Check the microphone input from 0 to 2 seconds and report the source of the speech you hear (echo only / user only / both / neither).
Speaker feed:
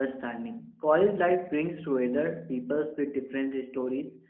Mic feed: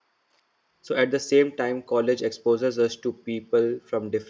user only